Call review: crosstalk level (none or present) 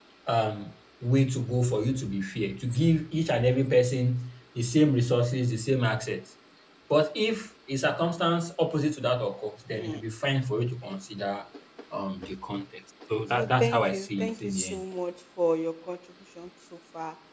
present